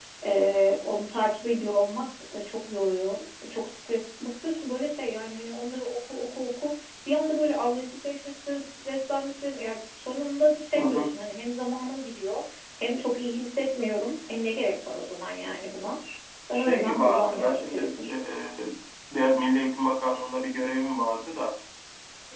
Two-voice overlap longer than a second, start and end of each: 16.5-18.1

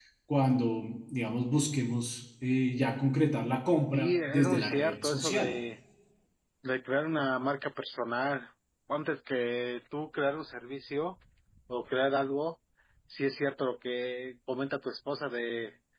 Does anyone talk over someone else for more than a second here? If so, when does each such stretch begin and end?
3.9-5.6

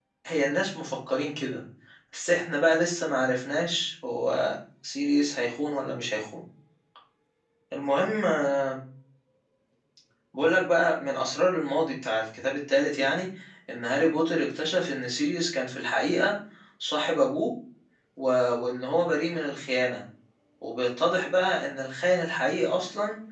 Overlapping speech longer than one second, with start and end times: none

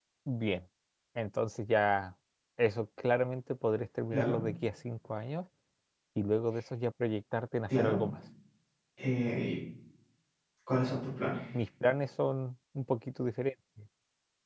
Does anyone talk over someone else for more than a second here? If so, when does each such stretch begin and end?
none

